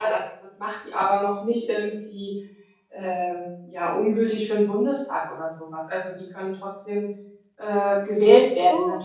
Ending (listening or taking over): listening